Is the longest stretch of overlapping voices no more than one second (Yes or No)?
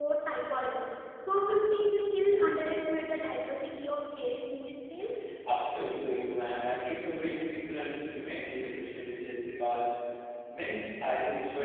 Yes